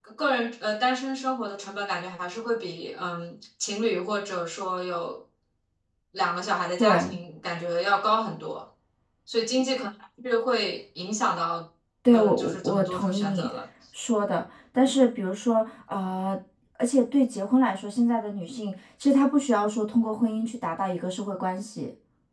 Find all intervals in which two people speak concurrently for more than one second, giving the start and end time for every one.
12.1-13.5

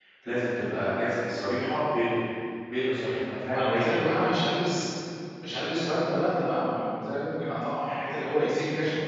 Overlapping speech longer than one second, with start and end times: none

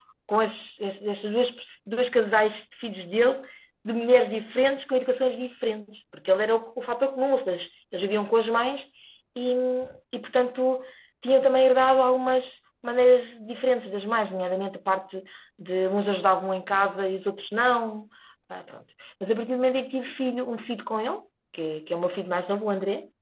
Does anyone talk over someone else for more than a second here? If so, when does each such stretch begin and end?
none

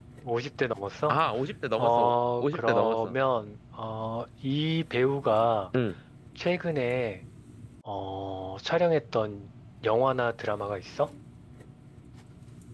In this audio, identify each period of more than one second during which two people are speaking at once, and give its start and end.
1.8-3.1

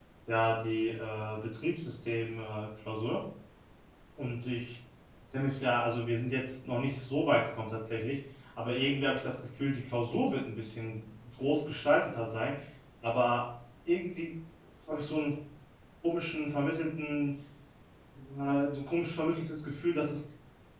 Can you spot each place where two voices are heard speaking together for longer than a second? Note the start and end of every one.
none

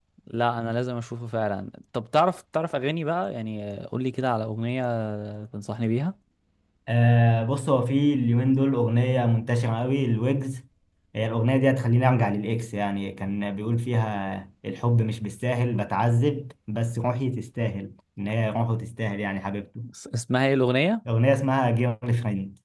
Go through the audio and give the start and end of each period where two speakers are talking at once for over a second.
none

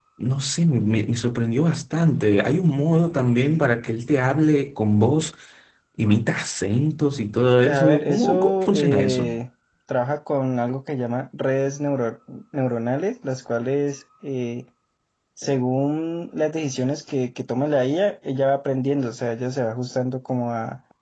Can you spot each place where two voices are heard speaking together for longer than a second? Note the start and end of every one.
7.6-9.3

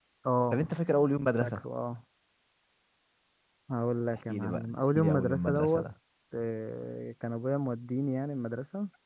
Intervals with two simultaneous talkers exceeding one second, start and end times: 4.3-5.8

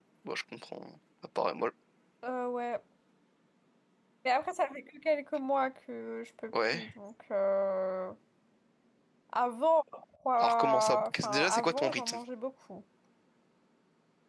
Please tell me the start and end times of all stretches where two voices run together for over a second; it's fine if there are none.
10.4-12.2

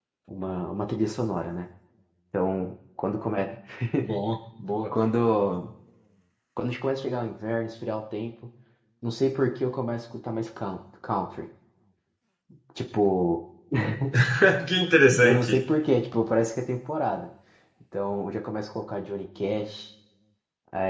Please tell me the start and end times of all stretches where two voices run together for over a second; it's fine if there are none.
none

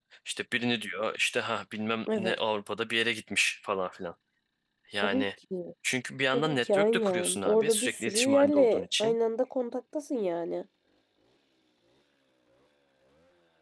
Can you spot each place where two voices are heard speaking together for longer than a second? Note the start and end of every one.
6.3-9.2

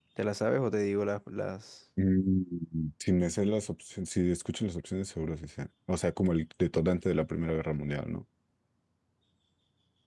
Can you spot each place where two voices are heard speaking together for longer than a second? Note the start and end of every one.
none

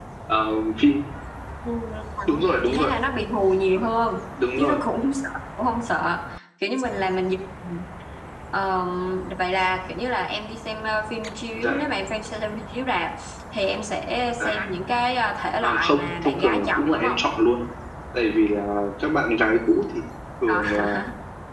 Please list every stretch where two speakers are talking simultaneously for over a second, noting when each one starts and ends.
15.6-17.2

